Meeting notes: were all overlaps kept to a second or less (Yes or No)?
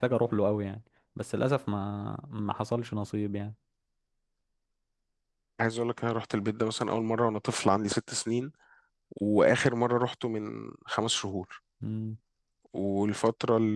Yes